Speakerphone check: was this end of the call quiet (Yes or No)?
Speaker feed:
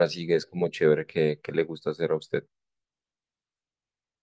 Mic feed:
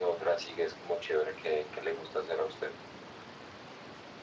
Yes